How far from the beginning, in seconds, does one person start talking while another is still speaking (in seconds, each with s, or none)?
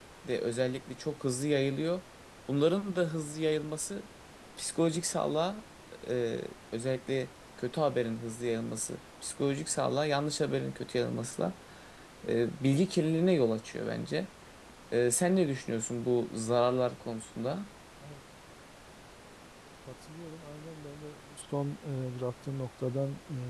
none